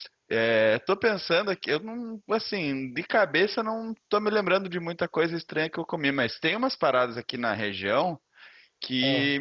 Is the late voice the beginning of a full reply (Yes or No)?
No